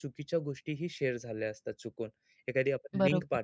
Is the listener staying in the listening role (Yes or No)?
Yes